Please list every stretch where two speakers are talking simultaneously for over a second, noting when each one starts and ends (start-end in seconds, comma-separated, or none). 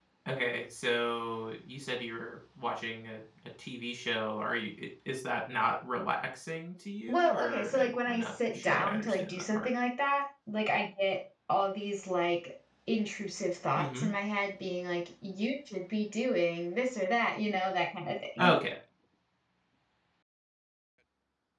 7.1-9.7